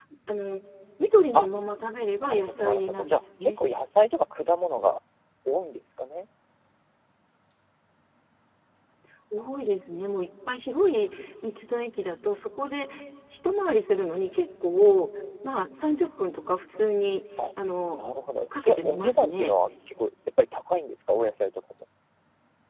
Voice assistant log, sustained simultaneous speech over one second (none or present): present